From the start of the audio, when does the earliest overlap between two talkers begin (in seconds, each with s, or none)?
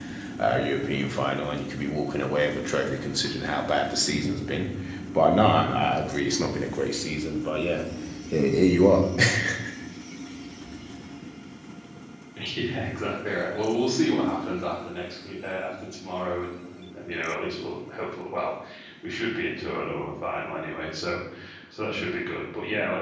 none